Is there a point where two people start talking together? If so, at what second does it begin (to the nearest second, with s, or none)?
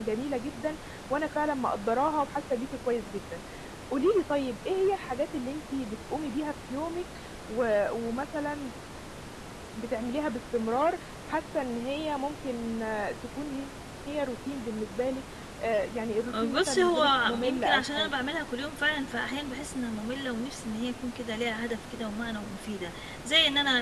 16 s